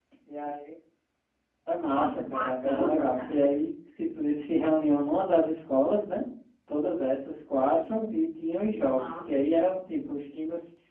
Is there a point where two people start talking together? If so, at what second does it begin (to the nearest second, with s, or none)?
2 s